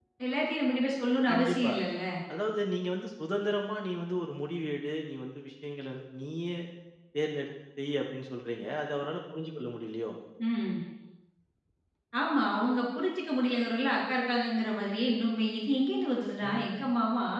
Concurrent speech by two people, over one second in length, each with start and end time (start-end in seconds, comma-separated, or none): none